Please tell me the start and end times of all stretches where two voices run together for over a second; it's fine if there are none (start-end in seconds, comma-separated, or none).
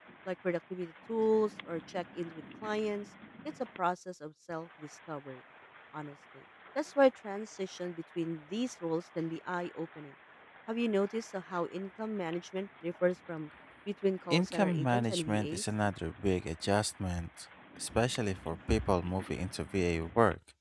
14.3-15.6